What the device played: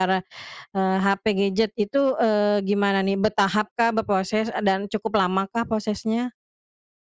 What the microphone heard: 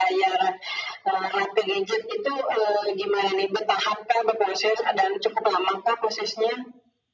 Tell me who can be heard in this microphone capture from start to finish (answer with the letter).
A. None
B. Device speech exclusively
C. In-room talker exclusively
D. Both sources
B